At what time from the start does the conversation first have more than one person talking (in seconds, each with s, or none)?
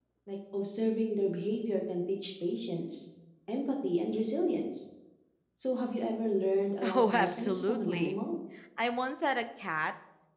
6.8 s